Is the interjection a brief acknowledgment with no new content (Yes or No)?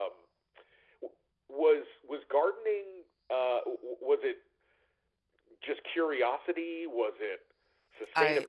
Yes